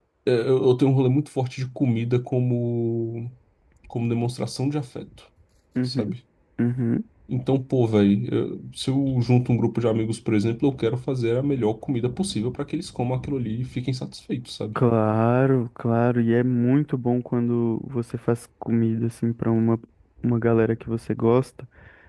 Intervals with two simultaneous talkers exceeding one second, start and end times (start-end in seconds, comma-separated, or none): none